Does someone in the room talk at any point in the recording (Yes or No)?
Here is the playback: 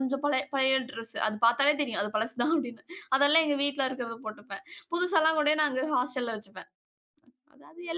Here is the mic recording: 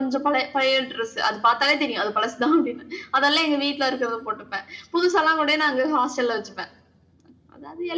No